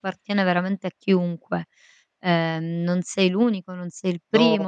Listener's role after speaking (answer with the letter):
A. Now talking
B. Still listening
A